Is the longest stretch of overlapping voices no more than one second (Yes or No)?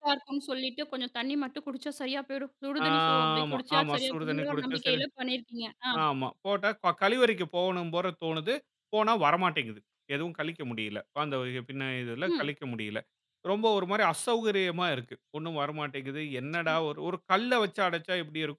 No